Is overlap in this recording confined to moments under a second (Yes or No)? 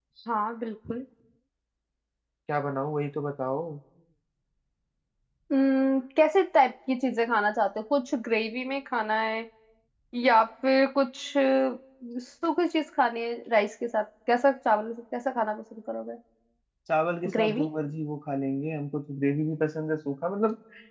Yes